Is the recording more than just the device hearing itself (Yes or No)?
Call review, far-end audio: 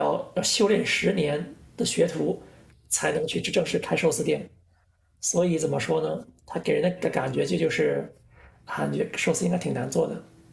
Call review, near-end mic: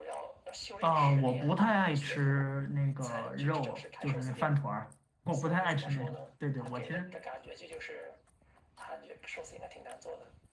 Yes